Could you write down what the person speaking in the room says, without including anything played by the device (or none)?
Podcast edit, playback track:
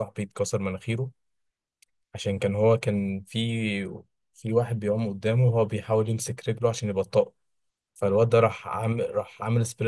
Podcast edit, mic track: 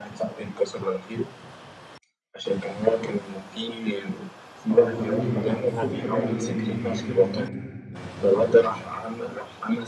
اه والتمارين بتاعت الصبح بدري دي دي كانت مميته يا نهار ابيض